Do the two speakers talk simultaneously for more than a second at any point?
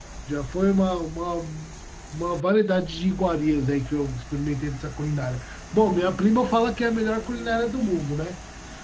No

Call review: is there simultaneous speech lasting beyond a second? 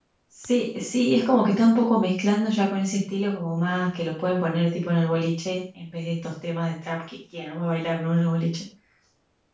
No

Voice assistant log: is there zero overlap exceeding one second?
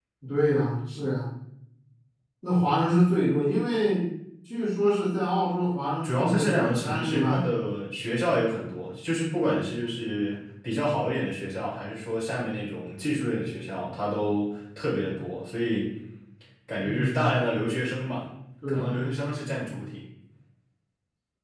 No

